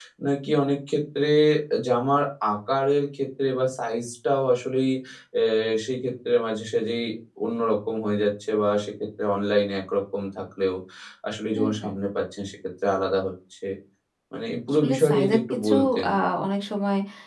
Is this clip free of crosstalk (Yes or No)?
No